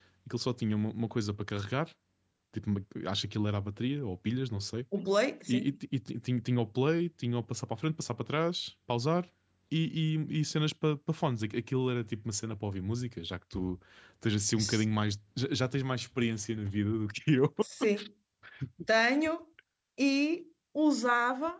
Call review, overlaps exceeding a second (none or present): none